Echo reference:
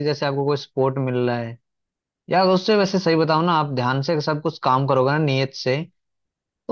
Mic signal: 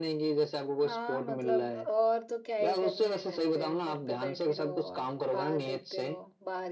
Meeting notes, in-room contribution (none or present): present